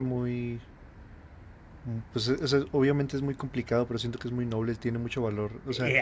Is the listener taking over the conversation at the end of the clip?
Yes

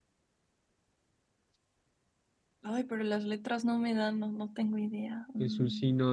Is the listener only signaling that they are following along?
No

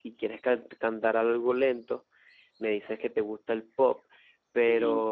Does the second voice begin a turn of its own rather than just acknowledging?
No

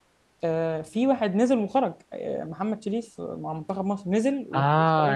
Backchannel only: No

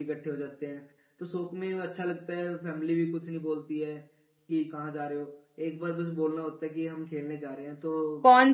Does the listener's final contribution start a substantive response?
Yes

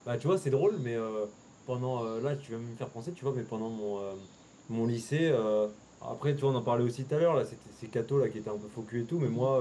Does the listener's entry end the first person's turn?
No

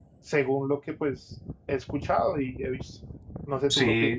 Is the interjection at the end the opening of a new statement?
Yes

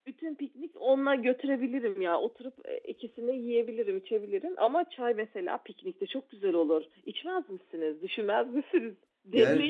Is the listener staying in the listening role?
No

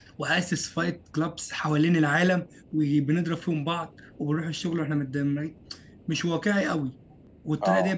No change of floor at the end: Yes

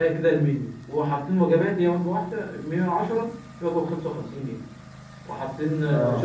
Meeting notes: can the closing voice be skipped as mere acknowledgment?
Yes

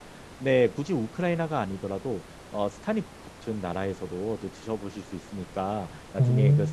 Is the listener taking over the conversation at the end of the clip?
No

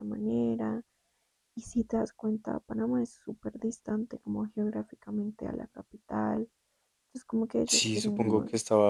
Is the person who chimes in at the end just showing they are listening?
No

